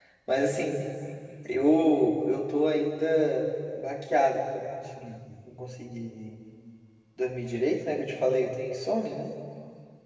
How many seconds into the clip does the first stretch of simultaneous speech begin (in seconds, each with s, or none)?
none